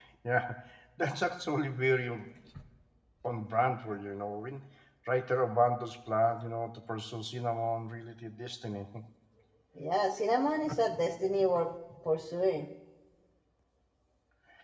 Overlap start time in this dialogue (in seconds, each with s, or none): none